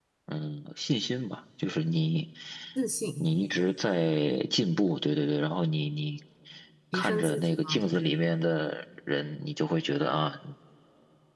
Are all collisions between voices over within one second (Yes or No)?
No